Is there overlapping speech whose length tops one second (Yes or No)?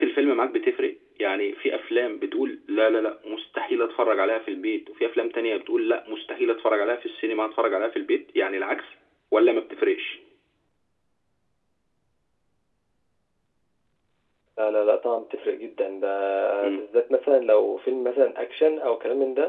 No